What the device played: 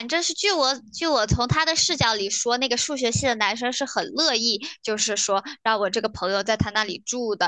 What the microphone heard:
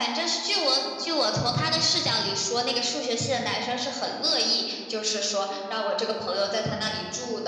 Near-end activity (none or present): none